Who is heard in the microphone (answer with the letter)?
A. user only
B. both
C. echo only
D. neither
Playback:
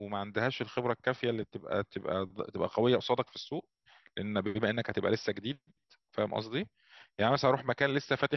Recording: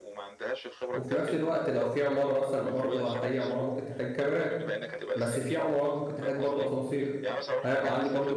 B